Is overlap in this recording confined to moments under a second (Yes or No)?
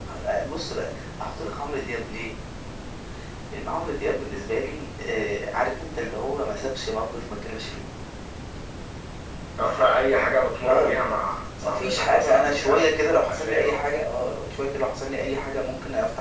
No